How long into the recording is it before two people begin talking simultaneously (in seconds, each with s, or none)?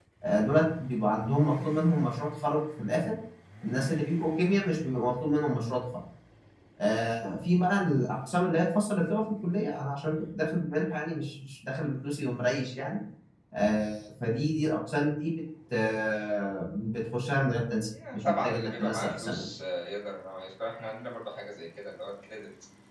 17.9 s